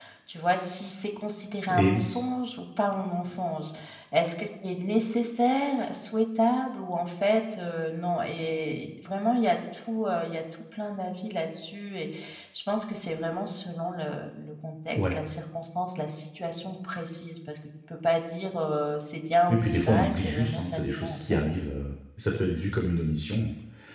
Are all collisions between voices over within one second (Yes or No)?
No